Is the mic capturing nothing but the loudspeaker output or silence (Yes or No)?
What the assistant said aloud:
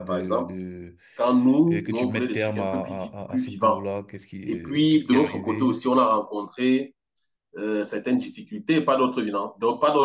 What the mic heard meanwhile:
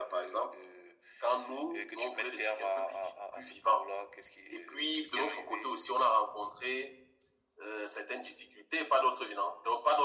Yes